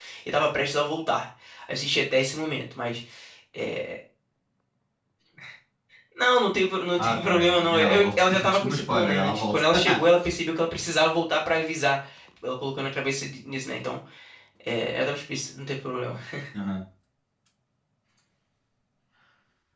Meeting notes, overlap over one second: present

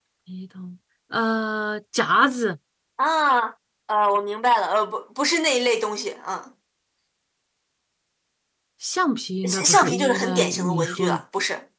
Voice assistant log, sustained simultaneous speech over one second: present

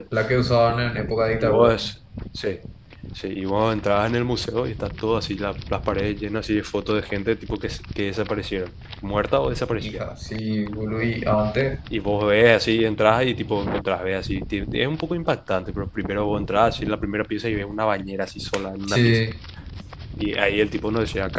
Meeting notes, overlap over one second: none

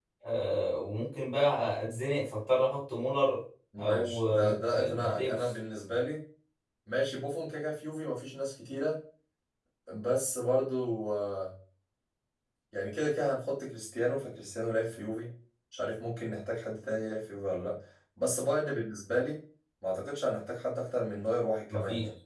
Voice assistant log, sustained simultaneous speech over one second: present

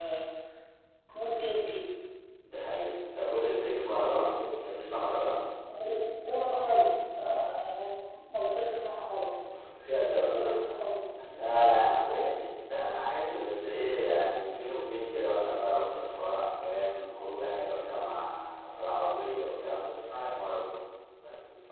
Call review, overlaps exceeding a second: none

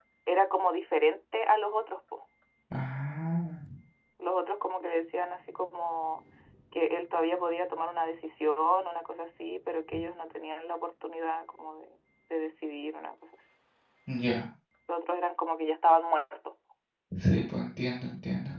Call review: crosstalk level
none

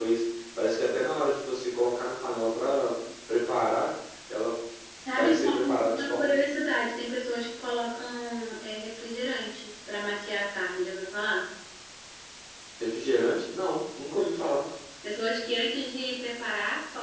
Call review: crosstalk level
present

